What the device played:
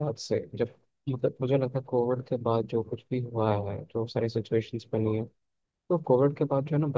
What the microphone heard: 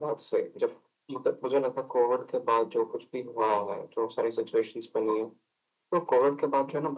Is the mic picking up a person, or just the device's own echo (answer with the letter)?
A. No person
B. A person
A